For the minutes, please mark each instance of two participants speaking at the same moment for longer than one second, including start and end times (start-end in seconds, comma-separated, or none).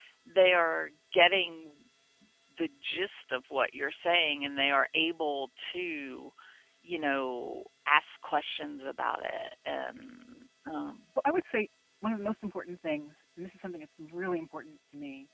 none